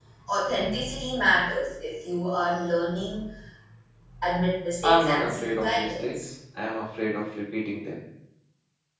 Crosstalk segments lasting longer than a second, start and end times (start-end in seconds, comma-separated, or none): 4.8-6.3